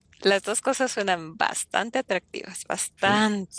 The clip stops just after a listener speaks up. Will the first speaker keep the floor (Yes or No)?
No